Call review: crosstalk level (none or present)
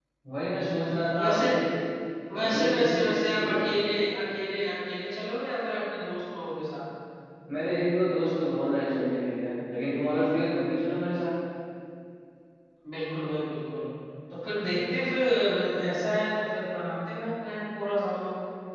present